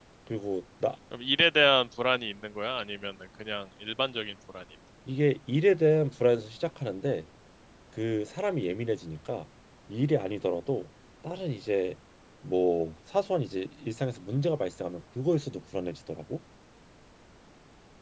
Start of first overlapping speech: none

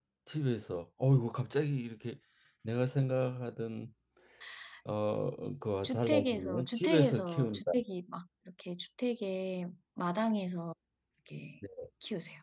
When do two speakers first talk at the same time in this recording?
5.8 s

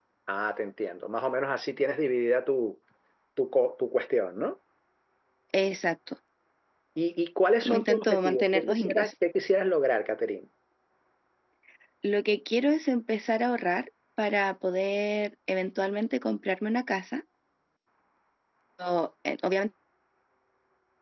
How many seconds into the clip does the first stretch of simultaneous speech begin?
7.6 s

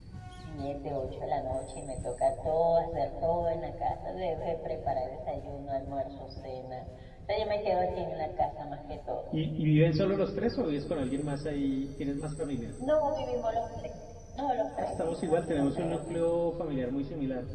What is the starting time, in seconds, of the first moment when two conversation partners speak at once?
14.8 s

